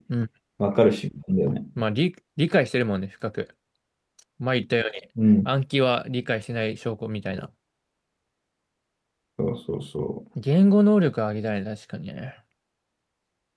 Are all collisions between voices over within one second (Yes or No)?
Yes